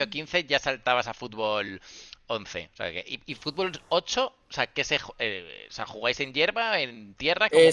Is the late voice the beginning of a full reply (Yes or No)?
Yes